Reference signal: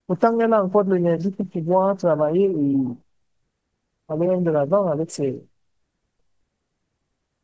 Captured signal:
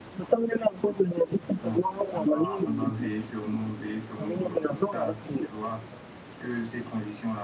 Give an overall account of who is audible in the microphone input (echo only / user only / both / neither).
both